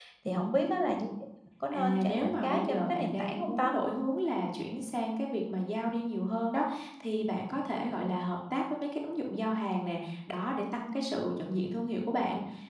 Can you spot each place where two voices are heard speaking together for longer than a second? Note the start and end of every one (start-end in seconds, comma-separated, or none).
1.7-3.7